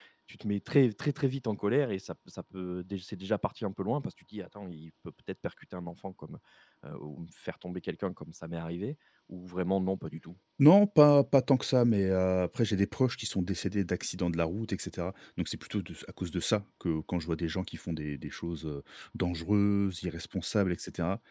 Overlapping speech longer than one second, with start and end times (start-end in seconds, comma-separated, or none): none